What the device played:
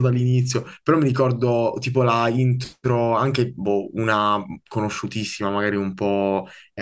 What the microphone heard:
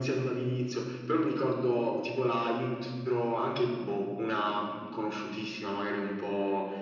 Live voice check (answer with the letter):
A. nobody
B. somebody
A